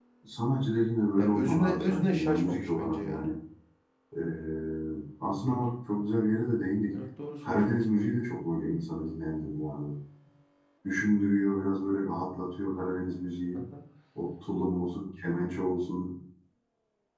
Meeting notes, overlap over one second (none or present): present